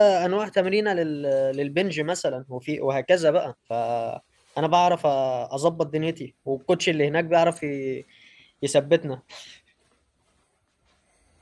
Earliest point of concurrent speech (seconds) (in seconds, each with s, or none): none